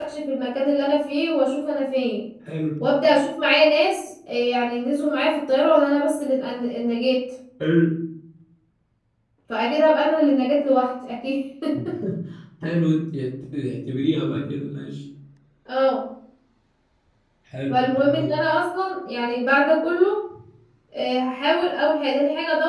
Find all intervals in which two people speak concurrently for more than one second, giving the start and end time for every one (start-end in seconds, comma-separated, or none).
none